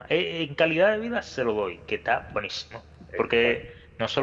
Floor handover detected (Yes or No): No